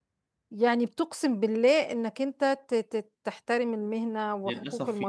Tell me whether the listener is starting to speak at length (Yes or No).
Yes